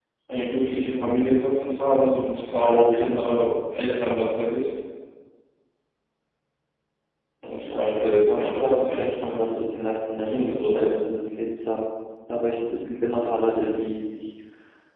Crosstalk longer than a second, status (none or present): present